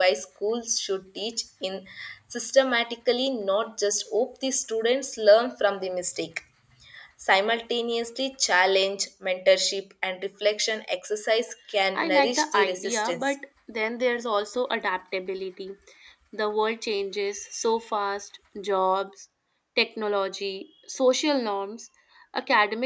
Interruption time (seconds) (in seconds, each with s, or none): 11.9 s